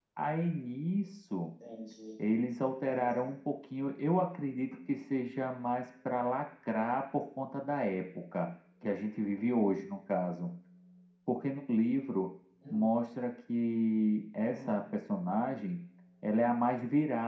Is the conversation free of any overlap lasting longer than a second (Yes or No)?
Yes